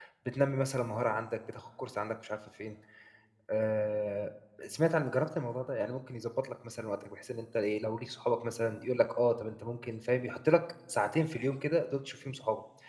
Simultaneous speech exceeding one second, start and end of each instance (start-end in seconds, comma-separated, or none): none